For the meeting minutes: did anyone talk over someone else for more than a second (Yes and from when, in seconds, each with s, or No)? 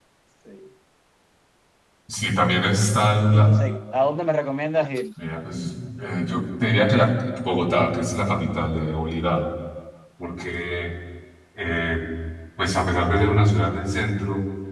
No